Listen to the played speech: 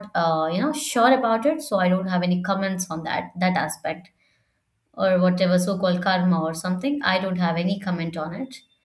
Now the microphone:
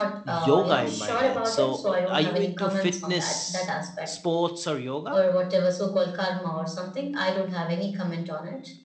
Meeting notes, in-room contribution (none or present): present